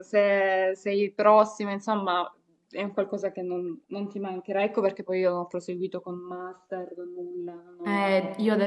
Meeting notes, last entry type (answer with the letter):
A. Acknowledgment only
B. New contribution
B